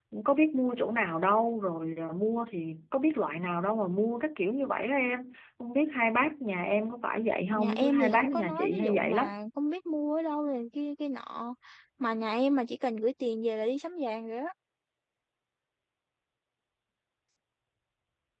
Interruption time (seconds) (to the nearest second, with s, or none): 8 s